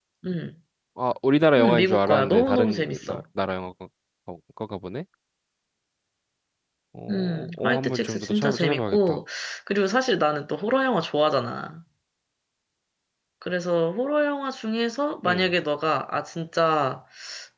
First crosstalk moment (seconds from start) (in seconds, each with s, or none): 1.6 s